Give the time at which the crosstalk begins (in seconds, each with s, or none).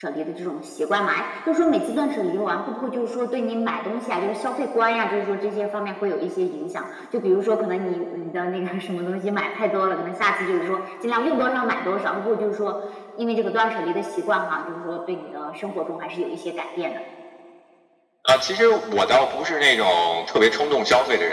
none